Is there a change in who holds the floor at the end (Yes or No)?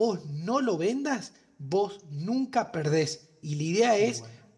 No